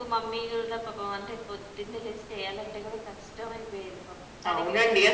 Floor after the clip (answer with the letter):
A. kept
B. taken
B